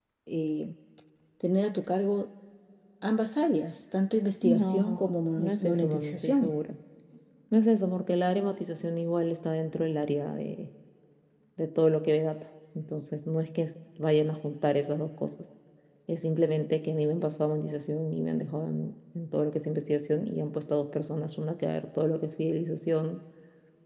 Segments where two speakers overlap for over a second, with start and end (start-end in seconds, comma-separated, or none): 4.4-6.5